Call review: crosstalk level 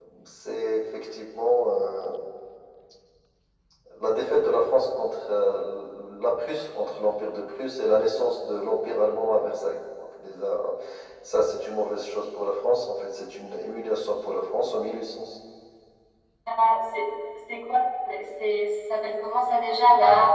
none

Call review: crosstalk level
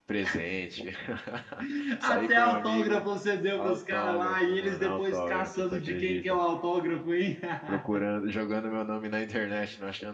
present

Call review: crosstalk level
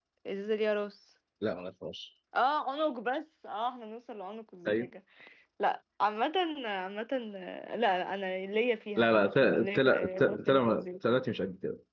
present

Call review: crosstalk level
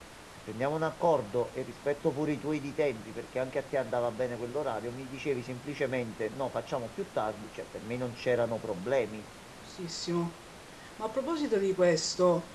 none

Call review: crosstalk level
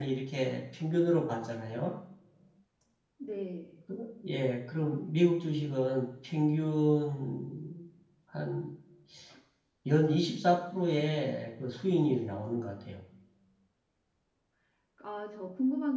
none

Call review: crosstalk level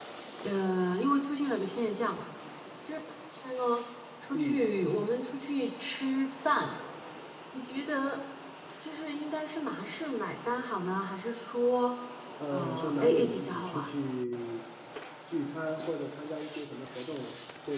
present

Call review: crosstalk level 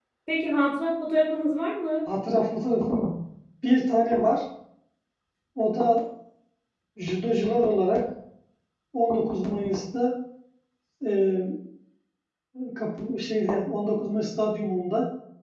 none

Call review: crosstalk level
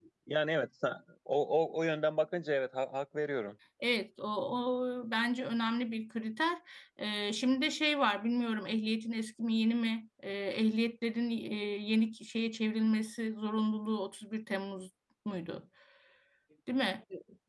none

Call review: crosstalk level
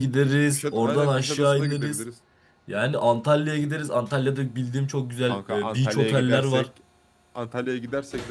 present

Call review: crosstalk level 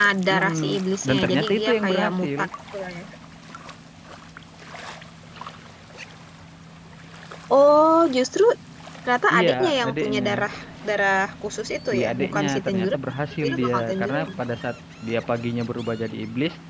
present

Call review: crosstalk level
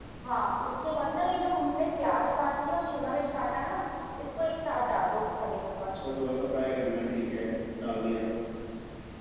none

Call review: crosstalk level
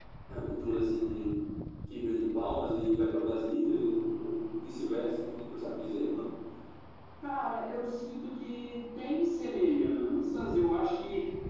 none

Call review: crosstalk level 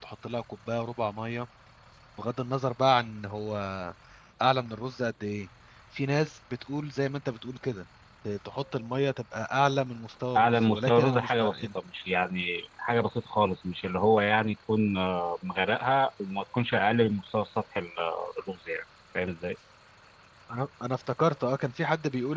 present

